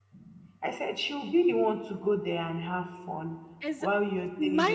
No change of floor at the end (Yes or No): No